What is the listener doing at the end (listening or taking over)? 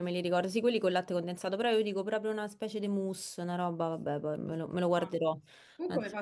taking over